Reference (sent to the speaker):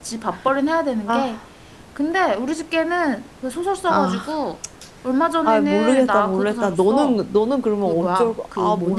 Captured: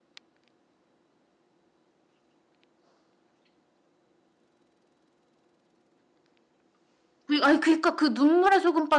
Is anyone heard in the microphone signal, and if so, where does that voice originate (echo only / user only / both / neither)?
user only